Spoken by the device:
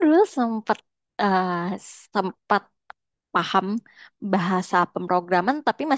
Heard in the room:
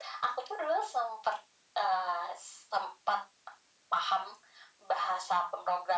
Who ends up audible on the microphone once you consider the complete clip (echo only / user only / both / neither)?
echo only